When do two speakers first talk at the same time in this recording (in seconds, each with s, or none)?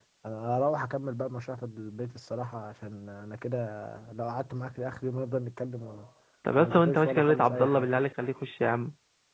6.6 s